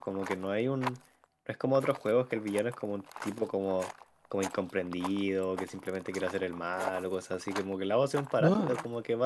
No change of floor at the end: Yes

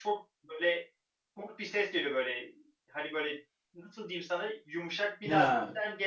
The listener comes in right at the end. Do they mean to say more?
No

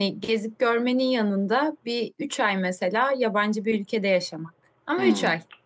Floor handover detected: Yes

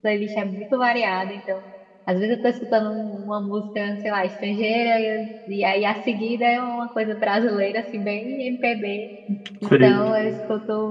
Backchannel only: Yes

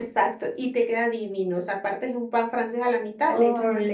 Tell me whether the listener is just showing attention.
Yes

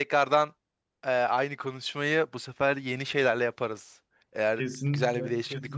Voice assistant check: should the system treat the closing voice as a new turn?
Yes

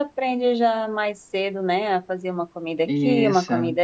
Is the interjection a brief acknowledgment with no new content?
Yes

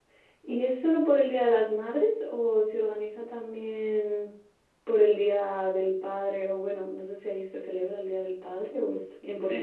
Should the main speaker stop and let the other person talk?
Yes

